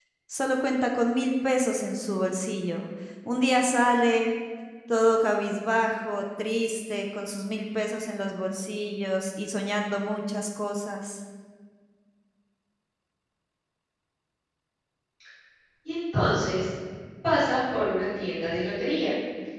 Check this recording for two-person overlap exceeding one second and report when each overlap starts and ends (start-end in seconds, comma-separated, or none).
none